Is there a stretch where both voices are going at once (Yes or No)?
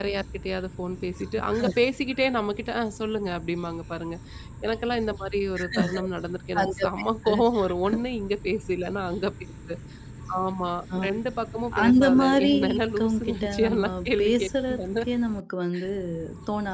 Yes